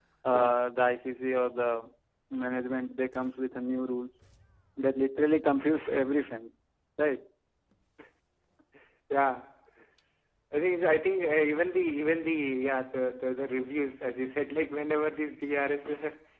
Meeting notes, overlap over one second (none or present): none